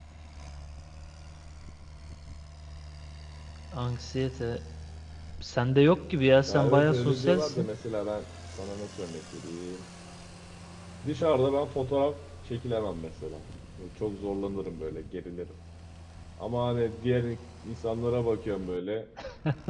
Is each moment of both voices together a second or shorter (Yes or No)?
No